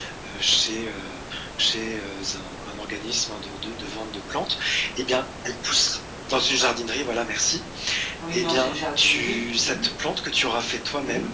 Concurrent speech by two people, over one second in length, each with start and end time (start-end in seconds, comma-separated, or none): 8.3-9.8